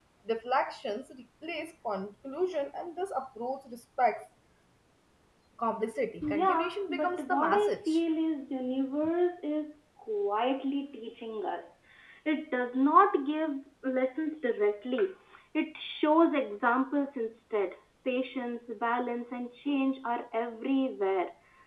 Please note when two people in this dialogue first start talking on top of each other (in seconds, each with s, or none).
6.2 s